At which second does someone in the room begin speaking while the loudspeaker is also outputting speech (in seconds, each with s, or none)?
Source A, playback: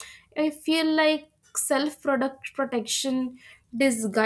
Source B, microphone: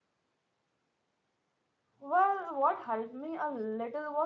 2.0 s